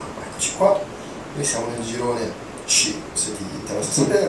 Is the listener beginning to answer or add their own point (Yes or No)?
Yes